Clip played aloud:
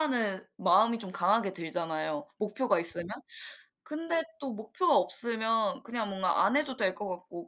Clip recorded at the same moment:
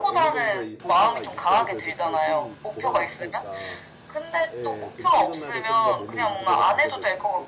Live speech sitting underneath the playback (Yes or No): Yes